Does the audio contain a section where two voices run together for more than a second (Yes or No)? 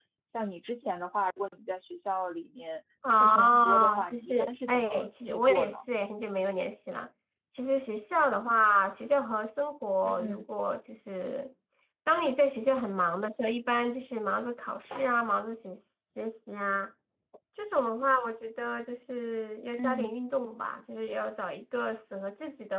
Yes